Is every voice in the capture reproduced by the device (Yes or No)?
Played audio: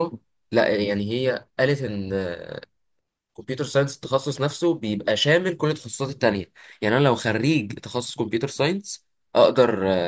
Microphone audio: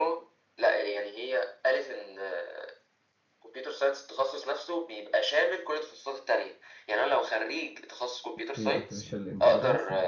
No